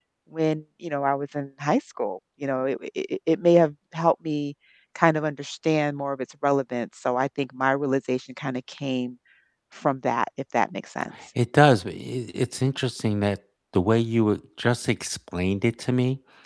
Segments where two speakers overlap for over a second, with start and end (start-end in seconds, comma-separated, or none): none